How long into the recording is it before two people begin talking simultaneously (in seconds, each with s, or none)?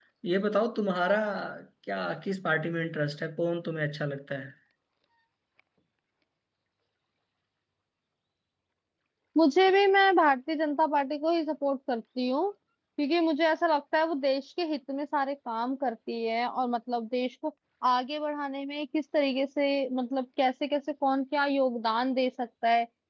none